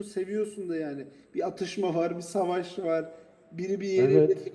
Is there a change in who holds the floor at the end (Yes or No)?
No